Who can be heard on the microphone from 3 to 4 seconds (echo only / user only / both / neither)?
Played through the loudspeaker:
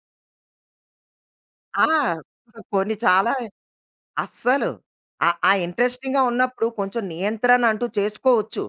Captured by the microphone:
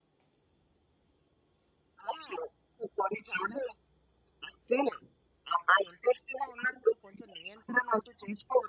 echo only